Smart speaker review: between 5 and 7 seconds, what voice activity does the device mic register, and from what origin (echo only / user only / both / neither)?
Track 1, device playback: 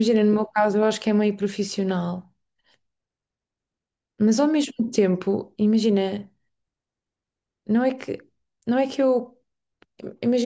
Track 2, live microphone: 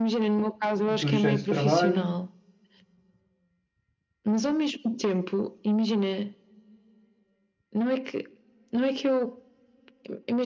echo only